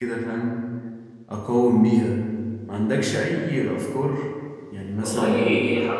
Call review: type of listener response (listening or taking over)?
taking over